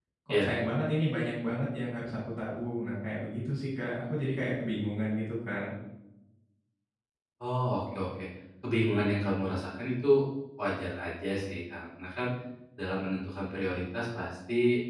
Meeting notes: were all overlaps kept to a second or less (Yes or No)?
Yes